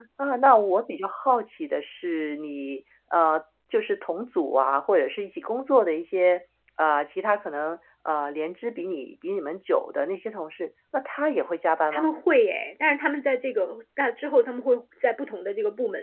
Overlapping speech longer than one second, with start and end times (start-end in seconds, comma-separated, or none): none